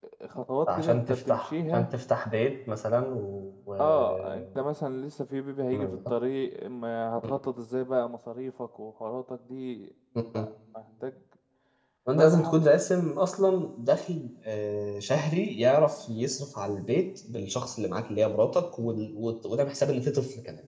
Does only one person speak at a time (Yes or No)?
No